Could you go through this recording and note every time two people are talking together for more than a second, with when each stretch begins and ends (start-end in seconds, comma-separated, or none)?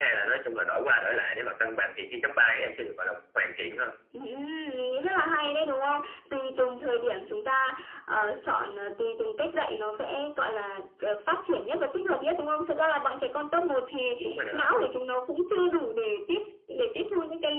none